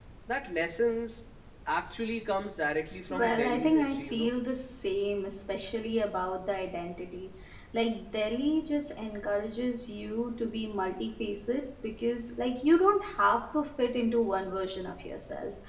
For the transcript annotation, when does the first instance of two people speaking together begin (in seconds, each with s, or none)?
3.1 s